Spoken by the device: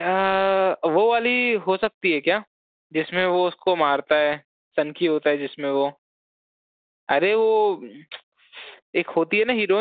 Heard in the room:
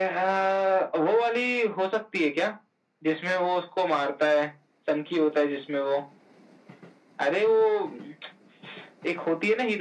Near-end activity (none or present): none